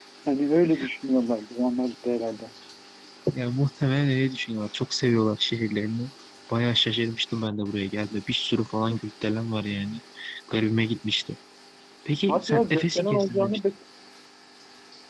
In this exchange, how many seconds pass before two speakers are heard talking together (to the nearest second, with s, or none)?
12 s